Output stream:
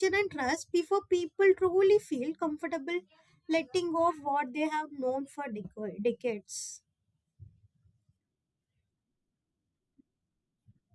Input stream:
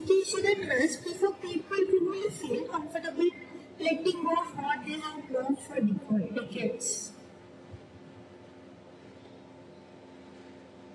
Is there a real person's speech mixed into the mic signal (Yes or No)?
No